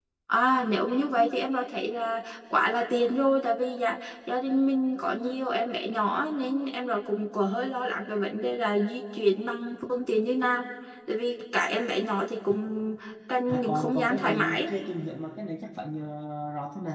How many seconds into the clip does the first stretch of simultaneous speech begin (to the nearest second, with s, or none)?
13 s